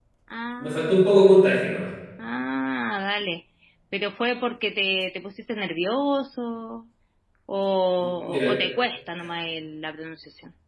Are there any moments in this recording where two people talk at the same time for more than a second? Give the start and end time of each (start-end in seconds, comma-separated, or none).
none